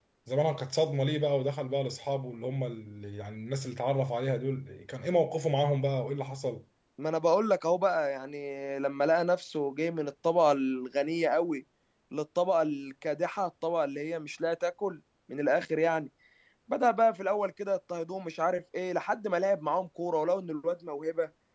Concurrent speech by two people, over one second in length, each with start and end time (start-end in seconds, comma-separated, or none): none